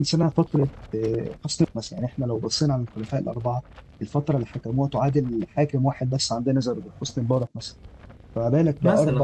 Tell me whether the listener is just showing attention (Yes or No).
Yes